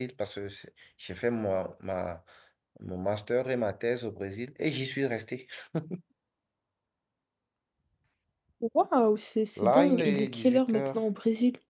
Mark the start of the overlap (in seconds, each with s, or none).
9.6 s